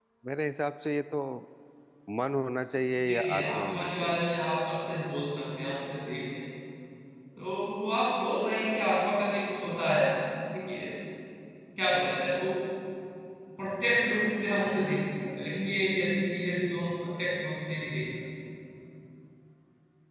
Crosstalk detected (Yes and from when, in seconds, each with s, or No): Yes, from 3.0 s